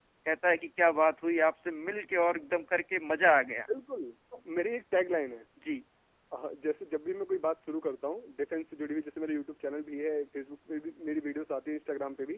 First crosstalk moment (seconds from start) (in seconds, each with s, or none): none